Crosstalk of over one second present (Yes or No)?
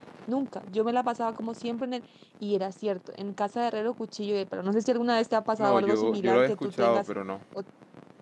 Yes